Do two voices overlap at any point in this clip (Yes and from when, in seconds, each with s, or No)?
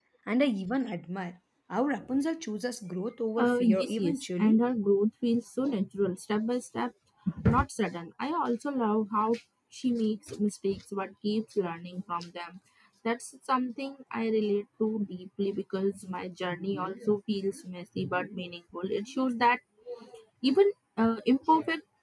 Yes, from 3.4 s